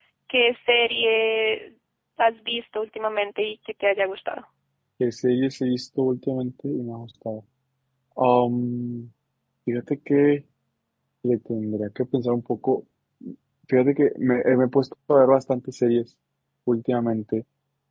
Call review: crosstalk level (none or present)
none